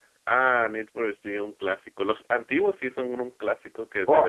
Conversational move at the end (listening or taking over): taking over